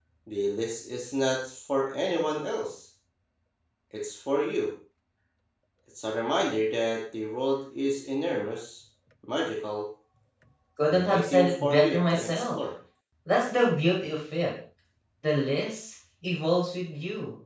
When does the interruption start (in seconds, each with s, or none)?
10.9 s